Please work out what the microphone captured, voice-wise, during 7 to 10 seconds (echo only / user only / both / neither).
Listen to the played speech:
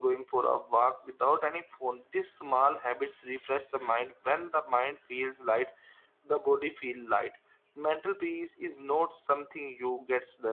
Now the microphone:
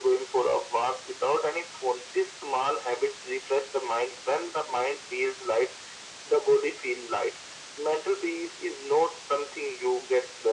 echo only